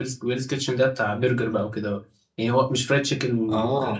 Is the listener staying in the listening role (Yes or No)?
Yes